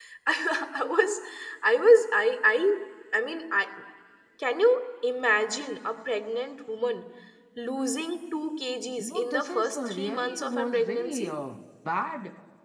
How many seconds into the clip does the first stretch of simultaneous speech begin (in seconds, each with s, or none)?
9.0 s